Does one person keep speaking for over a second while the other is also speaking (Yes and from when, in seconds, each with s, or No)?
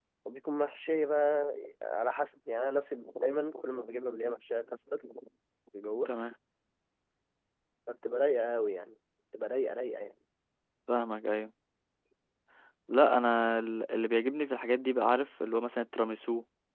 No